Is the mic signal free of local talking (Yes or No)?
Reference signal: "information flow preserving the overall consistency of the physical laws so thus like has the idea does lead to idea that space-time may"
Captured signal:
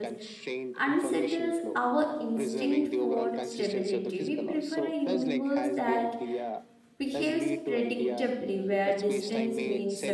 No